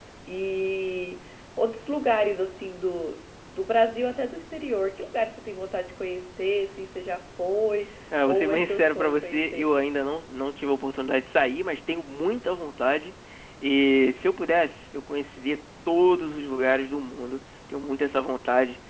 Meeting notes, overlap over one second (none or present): present